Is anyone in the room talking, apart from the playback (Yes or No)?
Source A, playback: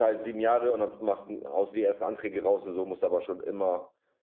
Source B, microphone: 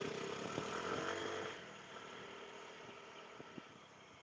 No